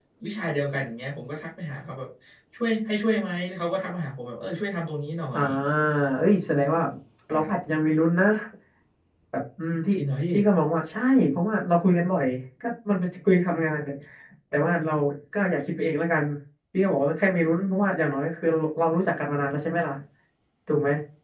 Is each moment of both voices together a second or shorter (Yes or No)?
Yes